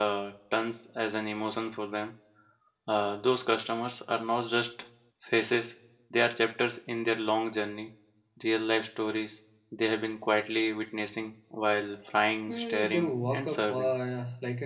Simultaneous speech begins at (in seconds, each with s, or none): 12.5 s